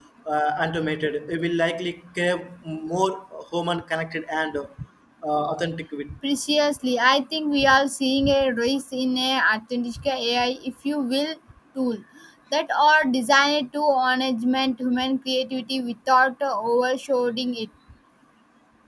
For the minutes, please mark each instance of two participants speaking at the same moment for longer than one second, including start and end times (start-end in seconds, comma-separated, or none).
none